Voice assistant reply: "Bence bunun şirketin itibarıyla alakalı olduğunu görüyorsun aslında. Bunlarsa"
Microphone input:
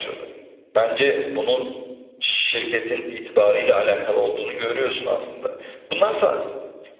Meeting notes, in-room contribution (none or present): none